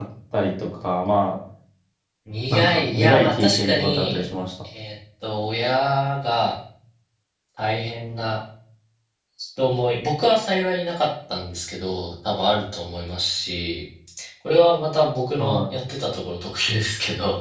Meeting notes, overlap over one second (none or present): present